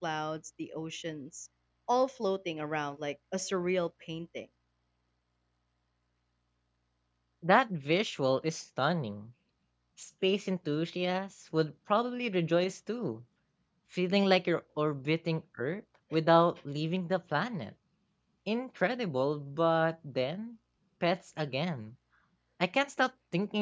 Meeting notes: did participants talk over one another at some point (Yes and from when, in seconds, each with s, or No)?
No